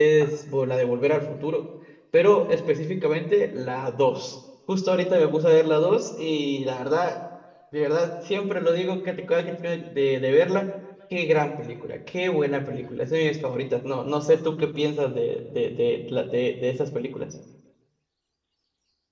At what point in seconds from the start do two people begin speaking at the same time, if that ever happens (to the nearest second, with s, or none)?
none